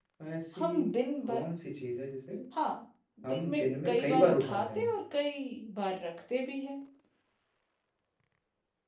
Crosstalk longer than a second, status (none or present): present